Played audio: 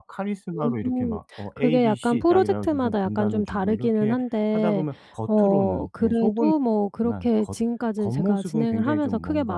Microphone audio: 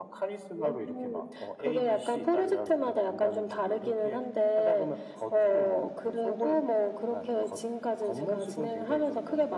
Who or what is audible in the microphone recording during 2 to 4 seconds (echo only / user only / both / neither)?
echo only